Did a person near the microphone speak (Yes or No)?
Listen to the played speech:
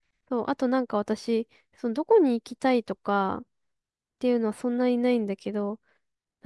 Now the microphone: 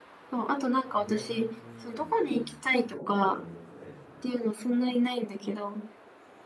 Yes